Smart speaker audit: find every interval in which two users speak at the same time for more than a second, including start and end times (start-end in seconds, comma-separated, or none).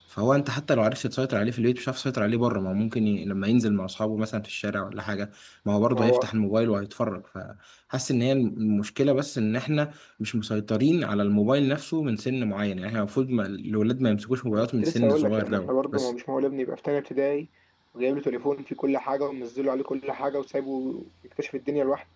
14.5-16.1